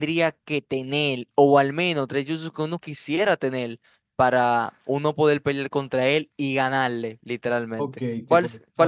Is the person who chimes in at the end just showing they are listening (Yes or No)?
No